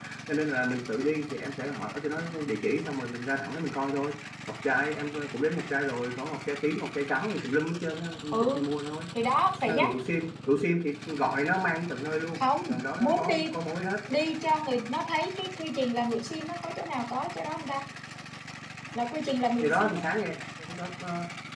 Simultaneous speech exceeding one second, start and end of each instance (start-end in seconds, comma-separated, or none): none